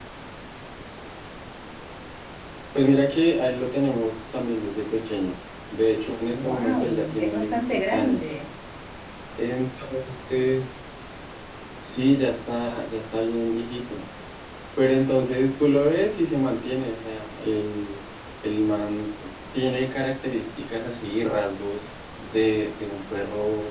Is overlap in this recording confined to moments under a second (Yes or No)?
No